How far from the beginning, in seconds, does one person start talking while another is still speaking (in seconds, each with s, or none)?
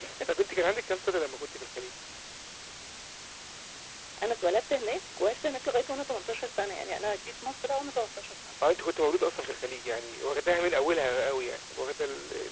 none